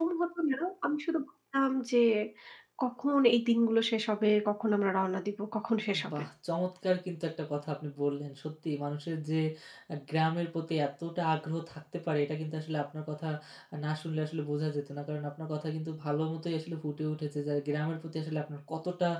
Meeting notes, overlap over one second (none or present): none